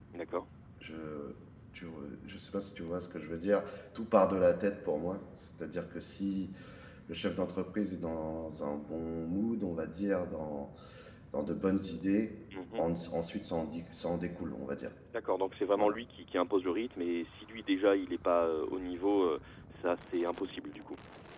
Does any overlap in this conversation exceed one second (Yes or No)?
No